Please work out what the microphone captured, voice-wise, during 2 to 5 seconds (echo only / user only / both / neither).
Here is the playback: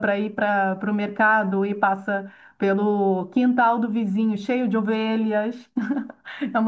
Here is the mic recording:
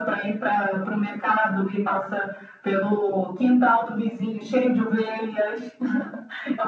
echo only